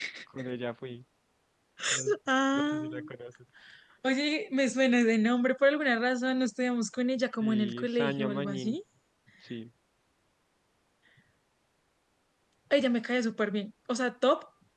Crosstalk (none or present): present